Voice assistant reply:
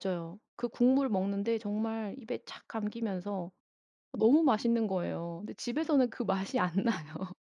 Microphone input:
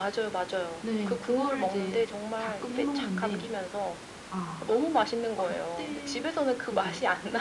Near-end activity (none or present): present